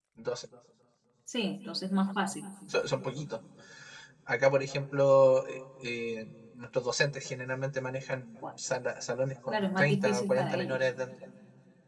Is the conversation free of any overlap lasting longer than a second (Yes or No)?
No